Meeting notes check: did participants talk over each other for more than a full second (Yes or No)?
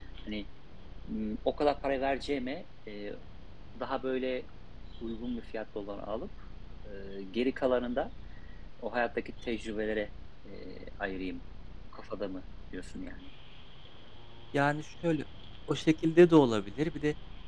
No